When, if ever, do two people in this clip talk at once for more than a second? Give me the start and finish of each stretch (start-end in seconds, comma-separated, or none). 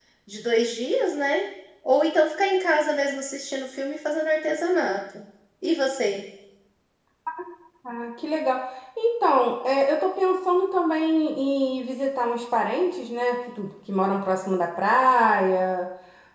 none